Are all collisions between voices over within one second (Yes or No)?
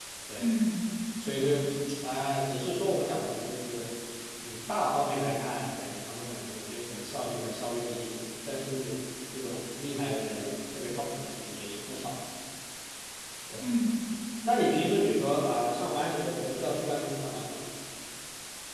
Yes